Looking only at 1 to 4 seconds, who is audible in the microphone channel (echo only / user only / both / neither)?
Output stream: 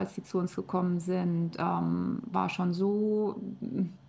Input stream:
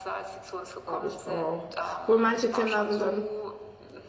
both